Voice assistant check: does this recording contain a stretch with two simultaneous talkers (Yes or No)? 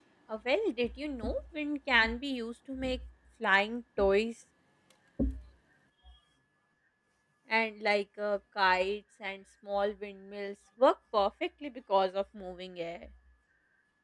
No